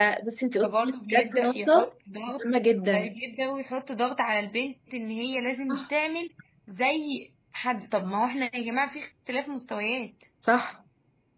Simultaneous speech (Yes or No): Yes